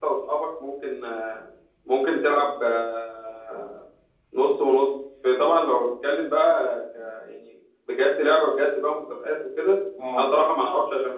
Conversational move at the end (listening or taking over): listening